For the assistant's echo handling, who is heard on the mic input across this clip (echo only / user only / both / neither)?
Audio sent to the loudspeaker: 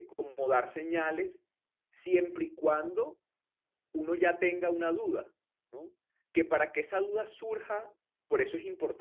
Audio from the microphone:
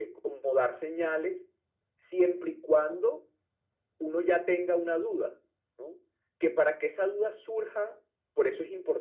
echo only